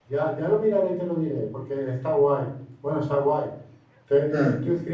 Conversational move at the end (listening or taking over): listening